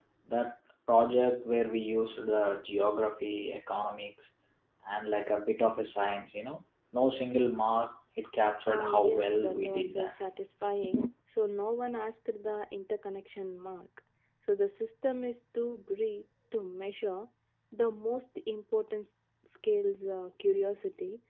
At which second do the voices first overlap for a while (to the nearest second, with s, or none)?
9 s